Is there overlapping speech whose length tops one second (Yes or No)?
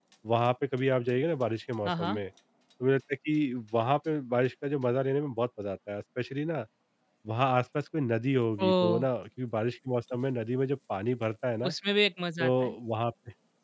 No